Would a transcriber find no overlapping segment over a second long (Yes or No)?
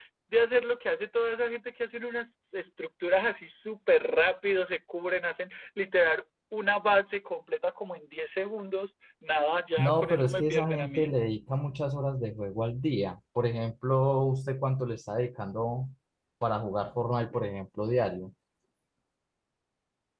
No